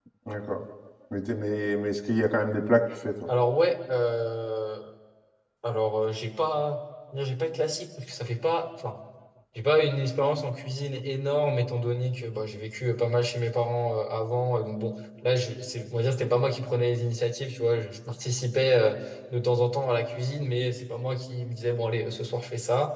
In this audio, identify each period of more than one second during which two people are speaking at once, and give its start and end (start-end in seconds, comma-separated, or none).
none